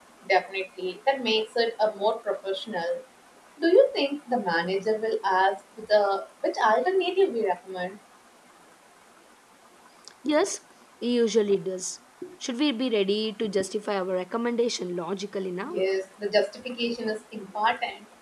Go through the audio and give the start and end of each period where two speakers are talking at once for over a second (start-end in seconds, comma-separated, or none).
none